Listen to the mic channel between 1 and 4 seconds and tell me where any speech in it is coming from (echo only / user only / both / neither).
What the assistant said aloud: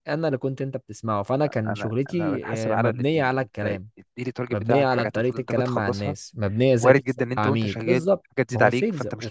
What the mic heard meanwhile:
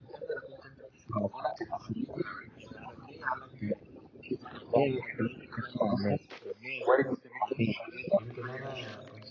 echo only